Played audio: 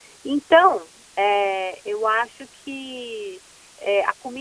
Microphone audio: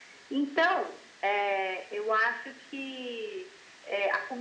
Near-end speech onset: none

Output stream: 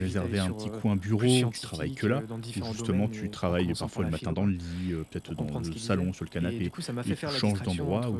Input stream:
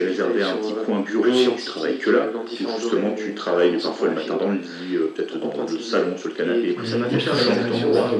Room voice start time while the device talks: 6.8 s

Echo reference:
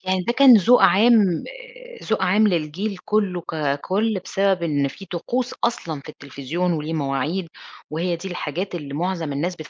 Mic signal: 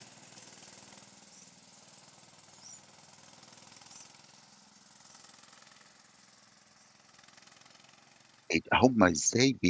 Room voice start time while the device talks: 8.5 s

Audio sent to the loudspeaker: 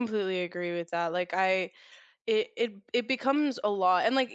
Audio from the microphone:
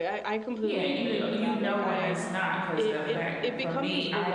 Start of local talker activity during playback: 0.6 s

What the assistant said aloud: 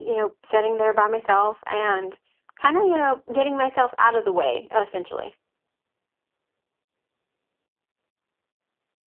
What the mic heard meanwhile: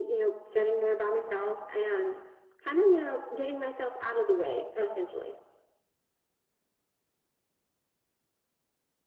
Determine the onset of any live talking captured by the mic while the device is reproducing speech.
none

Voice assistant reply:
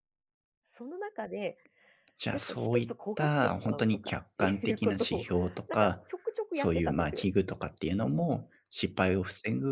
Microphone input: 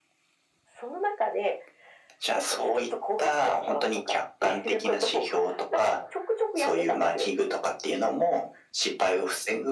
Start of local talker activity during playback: none

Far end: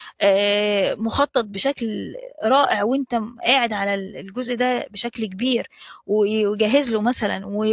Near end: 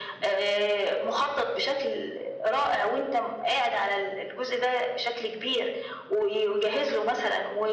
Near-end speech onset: none

